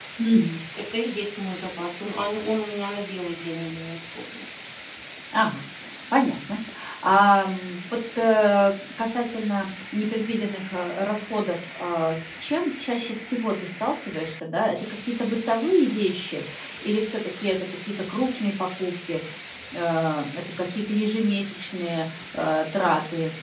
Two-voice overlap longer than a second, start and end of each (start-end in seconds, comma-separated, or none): none